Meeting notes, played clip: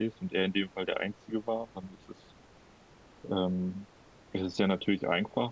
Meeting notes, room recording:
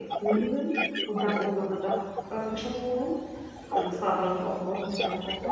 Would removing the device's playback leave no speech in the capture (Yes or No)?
No